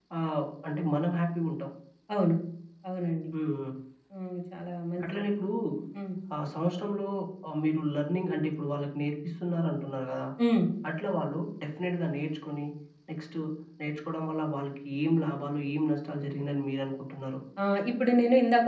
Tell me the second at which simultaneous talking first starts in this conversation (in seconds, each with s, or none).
none